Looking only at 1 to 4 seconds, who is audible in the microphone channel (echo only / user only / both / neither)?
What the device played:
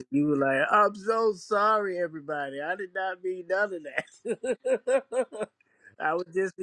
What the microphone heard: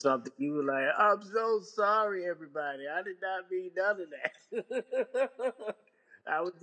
echo only